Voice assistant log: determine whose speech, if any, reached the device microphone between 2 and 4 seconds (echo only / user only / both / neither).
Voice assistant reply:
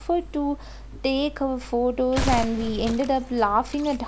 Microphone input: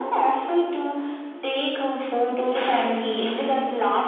echo only